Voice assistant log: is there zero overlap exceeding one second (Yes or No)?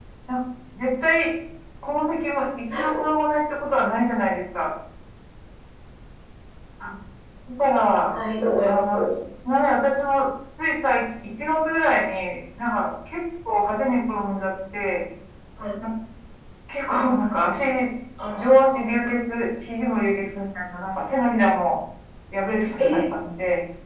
Yes